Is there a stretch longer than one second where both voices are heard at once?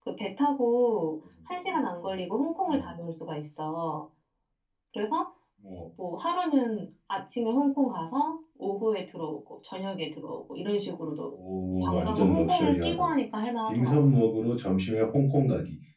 Yes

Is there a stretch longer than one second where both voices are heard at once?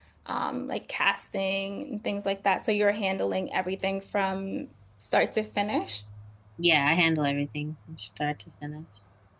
No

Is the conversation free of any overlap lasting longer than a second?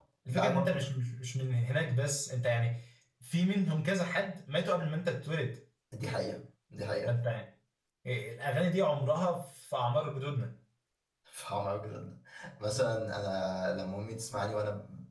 Yes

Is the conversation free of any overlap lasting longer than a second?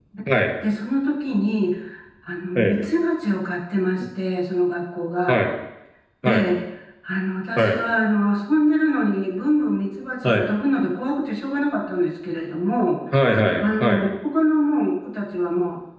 Yes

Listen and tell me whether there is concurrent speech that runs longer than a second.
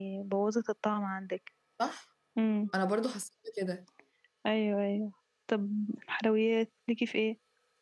No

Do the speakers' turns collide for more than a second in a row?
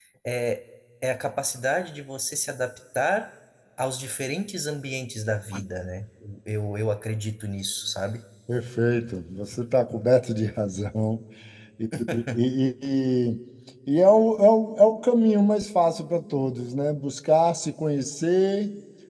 No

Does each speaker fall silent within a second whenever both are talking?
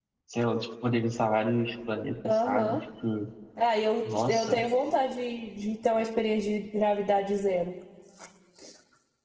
Yes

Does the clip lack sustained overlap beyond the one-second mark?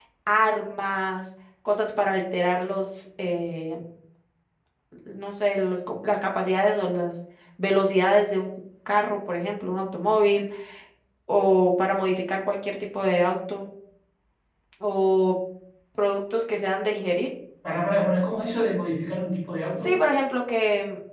Yes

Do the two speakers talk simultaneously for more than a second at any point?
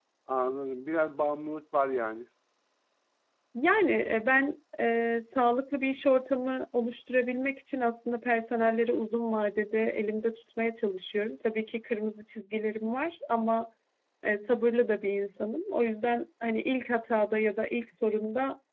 No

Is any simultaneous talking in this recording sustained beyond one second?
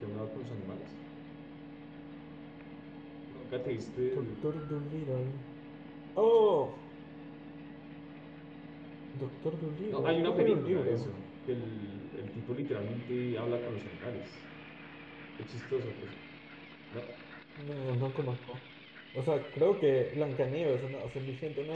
Yes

